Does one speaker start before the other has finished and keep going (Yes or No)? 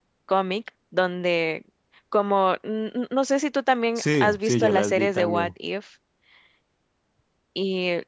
Yes